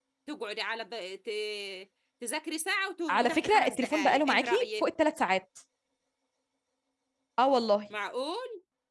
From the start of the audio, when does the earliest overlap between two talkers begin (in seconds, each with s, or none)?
3.1 s